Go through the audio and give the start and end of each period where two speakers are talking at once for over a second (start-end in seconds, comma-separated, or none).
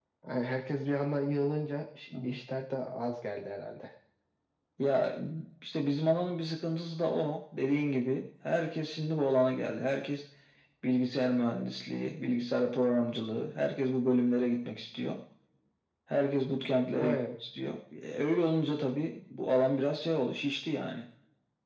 none